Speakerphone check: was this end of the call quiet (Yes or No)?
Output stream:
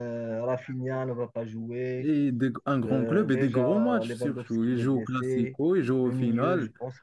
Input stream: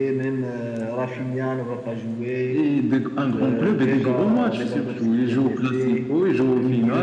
Yes